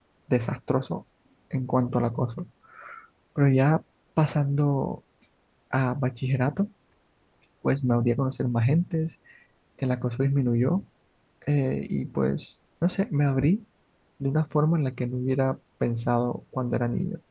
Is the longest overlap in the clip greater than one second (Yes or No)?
No